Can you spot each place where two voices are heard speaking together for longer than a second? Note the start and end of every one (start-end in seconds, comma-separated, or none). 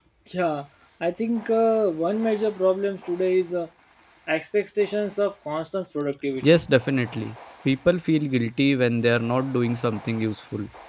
none